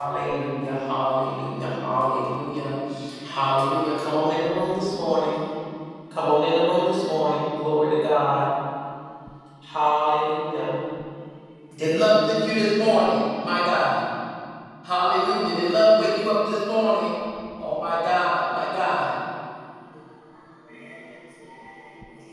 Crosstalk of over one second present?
No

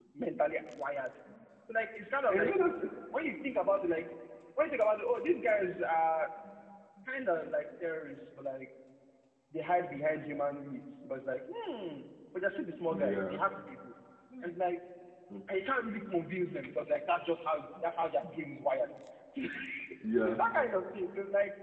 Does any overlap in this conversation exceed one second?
No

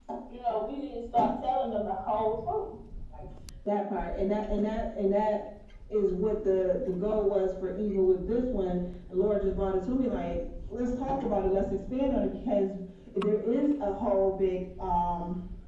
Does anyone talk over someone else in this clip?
No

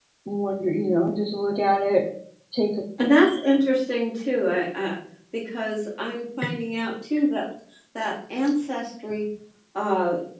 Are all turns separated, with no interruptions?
Yes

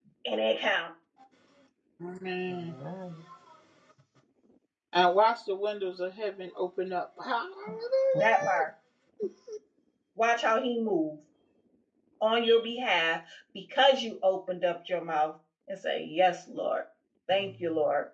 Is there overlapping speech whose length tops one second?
No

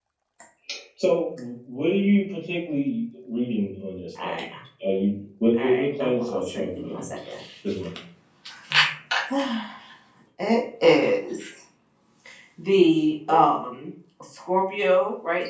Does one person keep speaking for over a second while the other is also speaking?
Yes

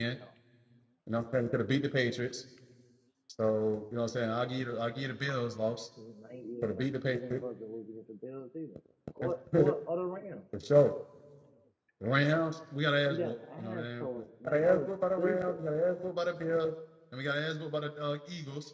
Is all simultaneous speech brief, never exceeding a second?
No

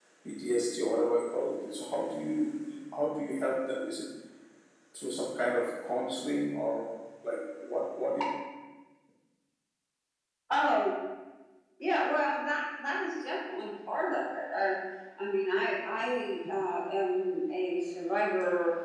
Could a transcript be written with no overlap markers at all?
Yes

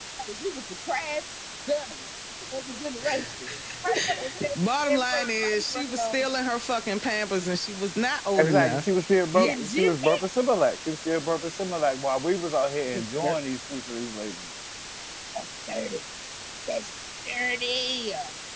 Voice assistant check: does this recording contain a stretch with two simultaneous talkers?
Yes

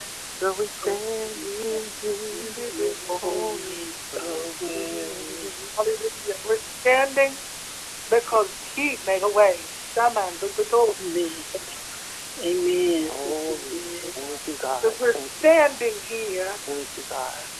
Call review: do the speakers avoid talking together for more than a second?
No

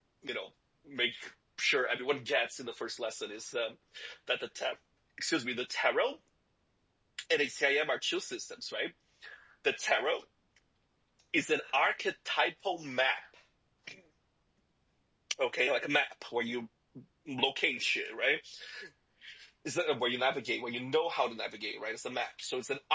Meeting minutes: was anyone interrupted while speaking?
No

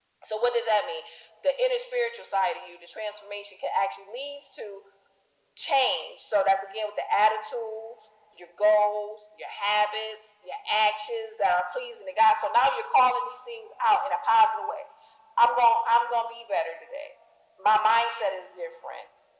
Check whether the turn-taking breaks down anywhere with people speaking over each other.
No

